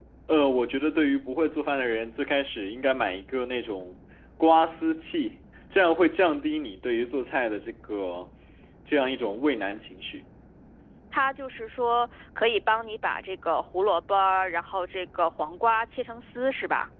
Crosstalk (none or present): none